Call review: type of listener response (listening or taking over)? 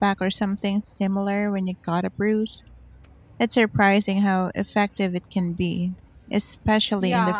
taking over